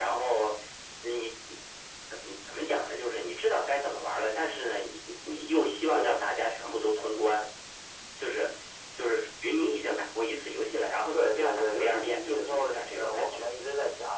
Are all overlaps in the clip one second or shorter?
No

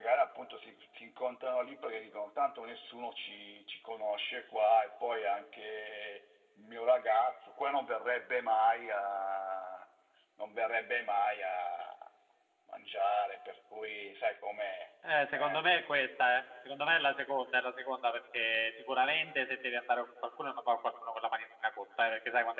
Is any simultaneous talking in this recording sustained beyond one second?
No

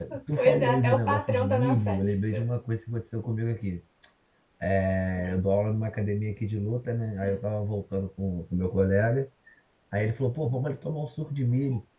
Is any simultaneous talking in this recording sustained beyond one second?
Yes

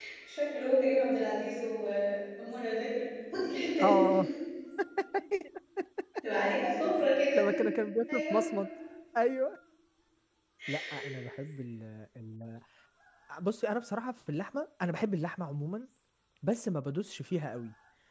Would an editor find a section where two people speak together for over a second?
No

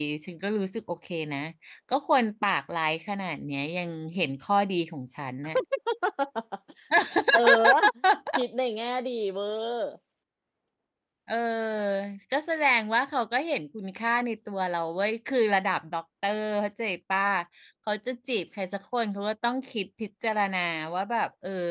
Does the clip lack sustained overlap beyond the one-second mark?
Yes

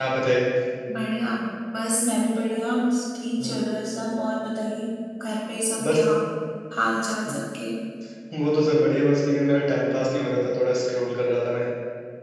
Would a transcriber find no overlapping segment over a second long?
Yes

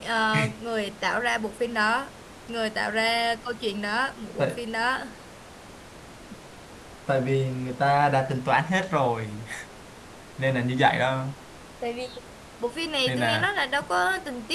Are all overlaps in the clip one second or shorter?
Yes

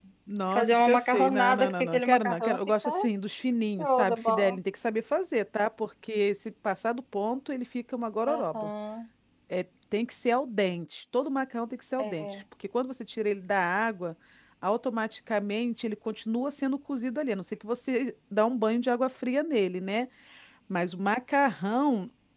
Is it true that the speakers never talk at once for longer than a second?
No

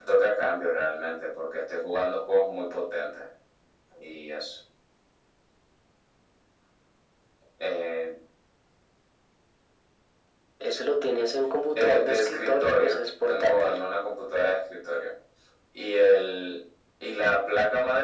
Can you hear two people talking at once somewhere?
Yes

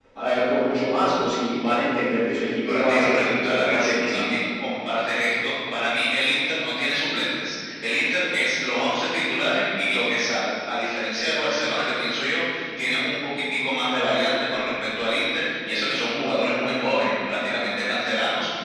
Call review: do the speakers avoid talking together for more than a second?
No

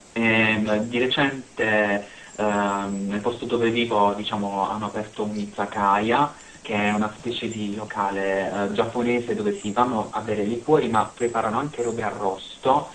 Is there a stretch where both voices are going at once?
No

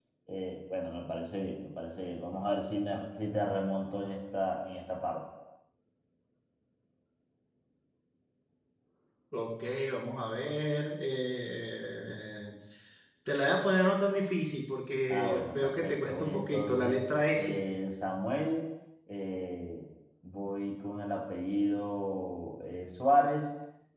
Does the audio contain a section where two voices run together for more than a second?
Yes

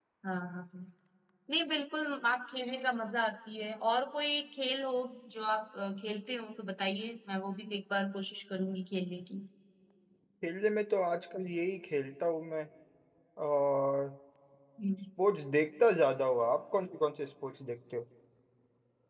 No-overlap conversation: Yes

